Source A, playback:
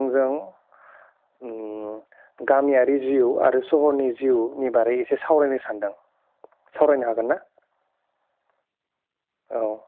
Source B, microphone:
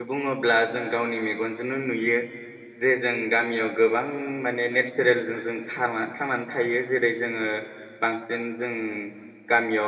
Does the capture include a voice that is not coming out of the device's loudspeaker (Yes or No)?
Yes